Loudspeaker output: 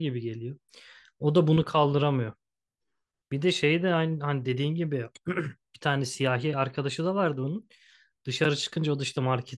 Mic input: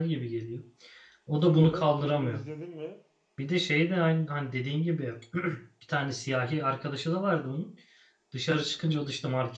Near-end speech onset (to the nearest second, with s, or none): 1 s